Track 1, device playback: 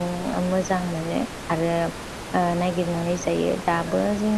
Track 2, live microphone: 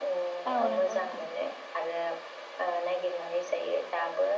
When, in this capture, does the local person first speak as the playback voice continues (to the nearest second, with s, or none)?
1 s